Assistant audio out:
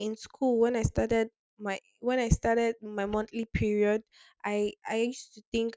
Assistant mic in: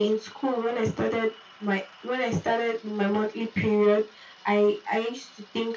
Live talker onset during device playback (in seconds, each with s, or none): none